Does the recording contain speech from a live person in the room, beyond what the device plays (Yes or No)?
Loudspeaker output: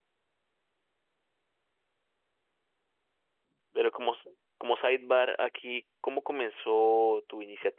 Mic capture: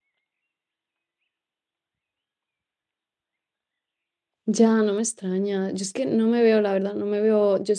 Yes